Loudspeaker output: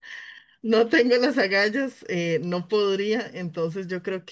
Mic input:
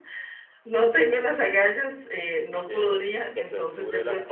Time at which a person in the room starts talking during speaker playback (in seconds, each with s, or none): 2.6 s